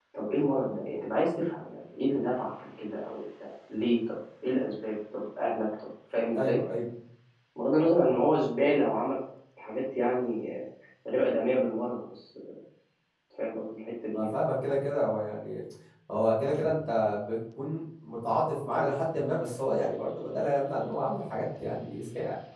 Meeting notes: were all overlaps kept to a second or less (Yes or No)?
Yes